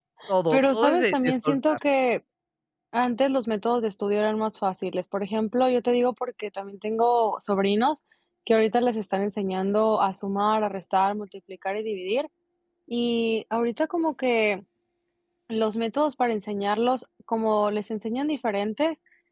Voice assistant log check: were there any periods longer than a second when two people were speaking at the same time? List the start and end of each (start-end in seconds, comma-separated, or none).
0.5-1.8